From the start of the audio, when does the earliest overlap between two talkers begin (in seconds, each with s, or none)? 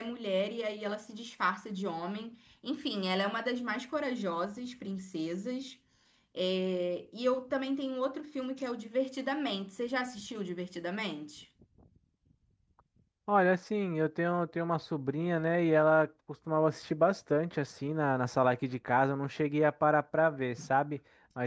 none